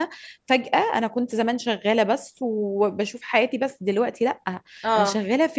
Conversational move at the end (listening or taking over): listening